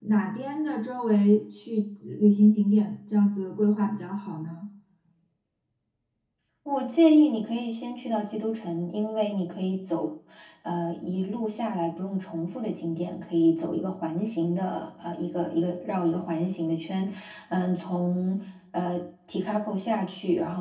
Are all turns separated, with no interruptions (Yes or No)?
Yes